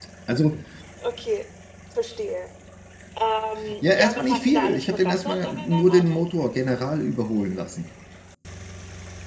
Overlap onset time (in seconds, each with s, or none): 4.0 s